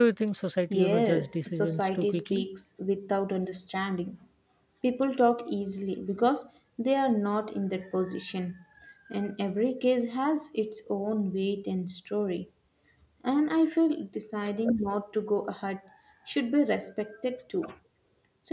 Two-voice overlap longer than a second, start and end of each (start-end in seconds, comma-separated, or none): 0.7-2.4